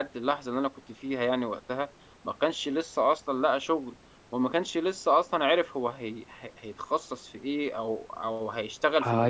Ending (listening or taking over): taking over